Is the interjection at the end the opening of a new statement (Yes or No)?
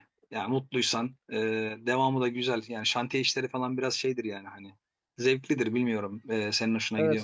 Yes